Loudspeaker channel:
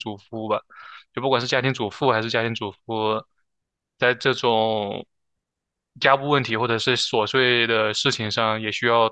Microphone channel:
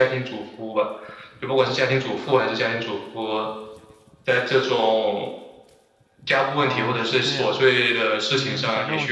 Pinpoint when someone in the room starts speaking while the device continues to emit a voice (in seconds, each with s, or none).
6.6 s